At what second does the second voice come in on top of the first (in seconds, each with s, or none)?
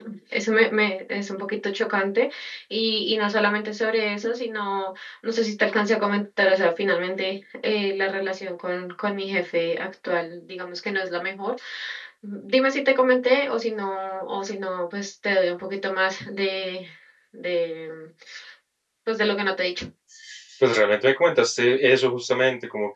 none